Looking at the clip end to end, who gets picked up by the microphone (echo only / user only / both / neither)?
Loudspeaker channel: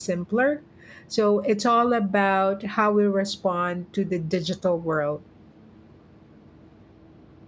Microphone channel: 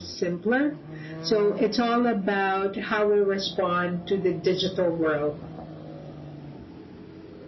echo only